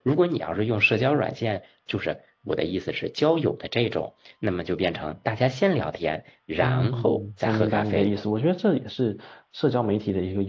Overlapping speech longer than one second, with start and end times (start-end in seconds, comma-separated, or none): 6.6-8.1